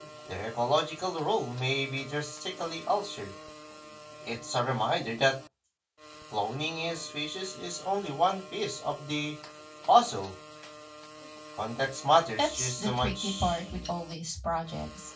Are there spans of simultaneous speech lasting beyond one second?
Yes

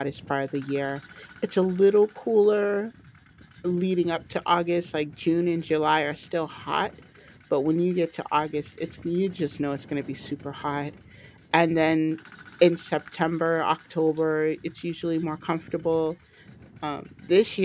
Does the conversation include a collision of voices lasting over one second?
No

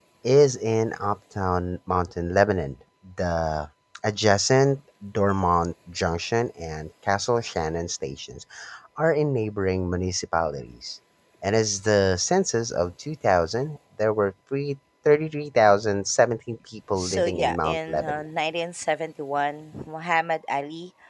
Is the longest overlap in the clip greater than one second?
Yes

